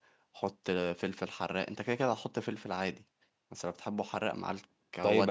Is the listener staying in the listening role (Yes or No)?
No